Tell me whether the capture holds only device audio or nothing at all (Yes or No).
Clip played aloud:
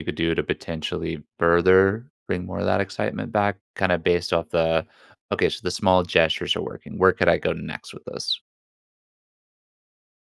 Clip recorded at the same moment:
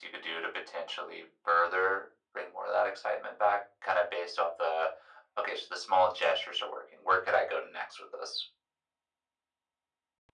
Yes